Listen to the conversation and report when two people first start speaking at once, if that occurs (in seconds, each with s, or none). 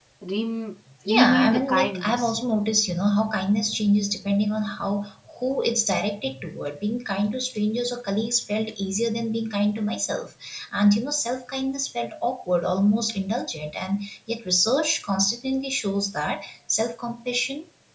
1.1 s